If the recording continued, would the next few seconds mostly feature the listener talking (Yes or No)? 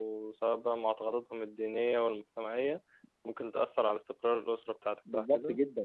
Yes